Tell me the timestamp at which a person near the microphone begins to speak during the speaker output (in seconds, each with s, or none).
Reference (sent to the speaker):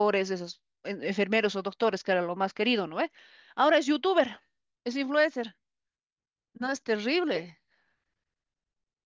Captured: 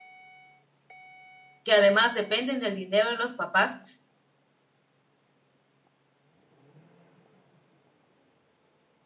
1.6 s